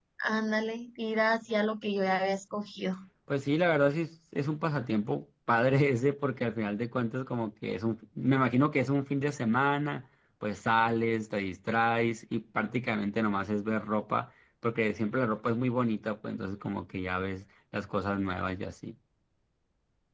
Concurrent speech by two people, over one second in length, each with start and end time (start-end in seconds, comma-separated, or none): none